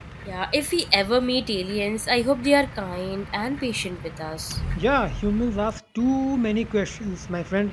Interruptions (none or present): none